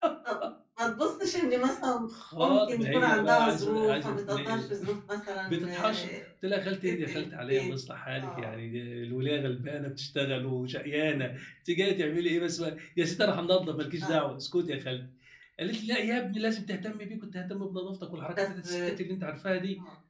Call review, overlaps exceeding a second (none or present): present